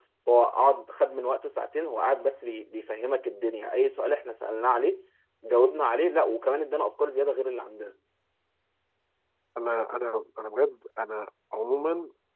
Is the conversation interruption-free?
Yes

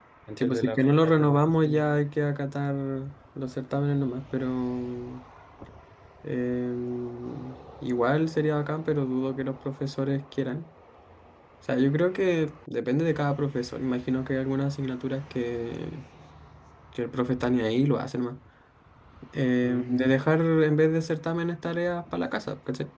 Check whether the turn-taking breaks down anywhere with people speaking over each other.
Yes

